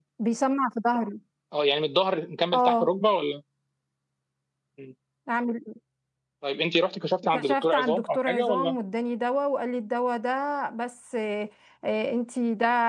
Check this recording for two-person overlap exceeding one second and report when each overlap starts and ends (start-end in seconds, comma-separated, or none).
7.3-8.7